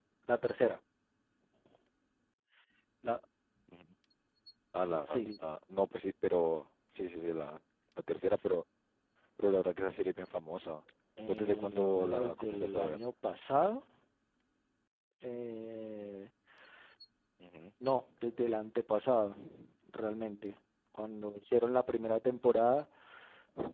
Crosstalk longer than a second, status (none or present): present